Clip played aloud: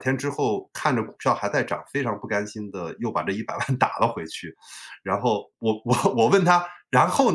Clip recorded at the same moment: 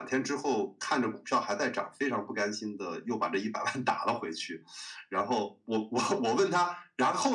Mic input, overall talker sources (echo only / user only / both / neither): echo only